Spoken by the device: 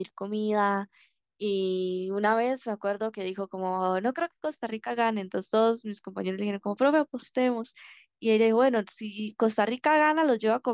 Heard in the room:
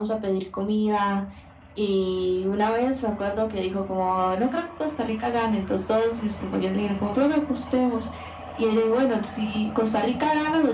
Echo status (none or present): present